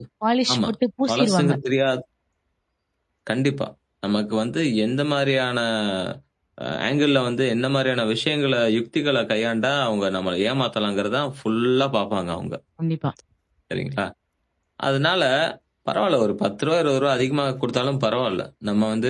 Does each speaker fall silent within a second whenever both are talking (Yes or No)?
Yes